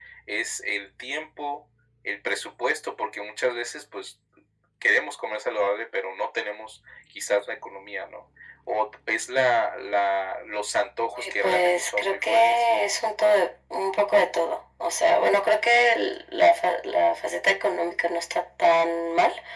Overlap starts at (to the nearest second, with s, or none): 11 s